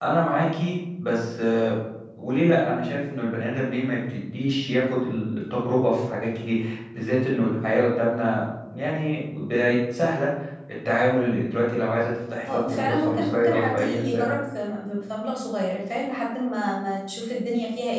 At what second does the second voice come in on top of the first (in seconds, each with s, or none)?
12.5 s